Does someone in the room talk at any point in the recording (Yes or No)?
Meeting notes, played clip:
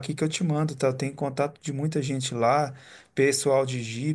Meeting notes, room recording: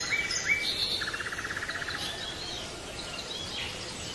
No